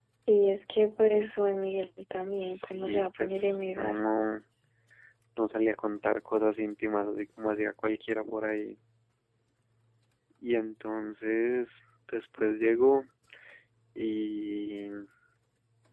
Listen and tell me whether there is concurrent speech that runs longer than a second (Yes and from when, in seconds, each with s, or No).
Yes, from 2.4 s